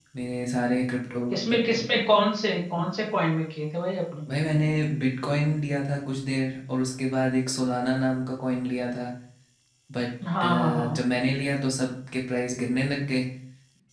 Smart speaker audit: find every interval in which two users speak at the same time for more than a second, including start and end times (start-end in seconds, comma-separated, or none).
none